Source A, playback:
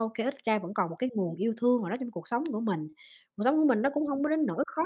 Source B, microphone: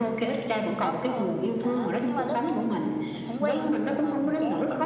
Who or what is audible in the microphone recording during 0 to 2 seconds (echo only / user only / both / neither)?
both